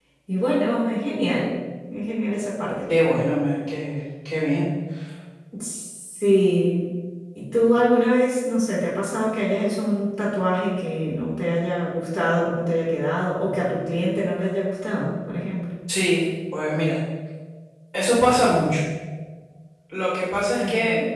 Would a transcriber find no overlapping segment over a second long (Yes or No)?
Yes